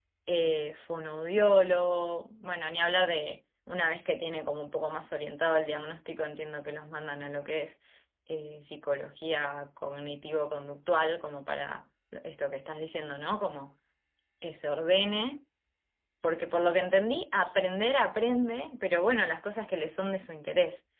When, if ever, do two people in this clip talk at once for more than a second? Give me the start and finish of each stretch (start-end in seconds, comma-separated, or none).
none